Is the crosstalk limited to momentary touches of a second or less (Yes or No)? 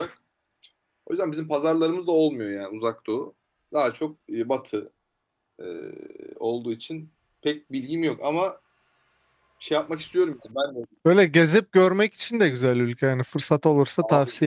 Yes